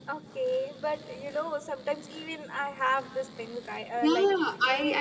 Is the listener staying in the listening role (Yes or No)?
No